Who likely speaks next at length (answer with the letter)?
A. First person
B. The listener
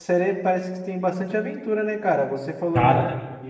A